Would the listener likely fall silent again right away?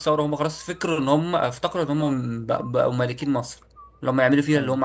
Yes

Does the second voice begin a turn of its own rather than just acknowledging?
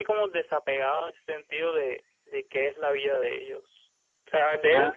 No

